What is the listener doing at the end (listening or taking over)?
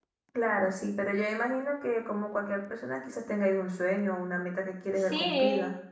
taking over